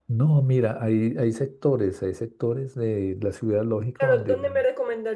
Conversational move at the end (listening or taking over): taking over